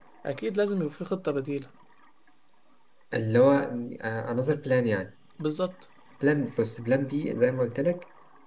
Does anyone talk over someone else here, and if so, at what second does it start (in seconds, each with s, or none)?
none